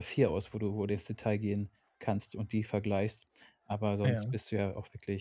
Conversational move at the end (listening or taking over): listening